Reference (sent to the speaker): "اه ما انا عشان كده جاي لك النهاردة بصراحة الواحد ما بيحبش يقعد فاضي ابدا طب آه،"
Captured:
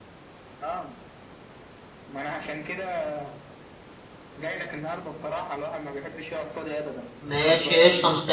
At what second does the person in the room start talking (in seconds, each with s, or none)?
7.2 s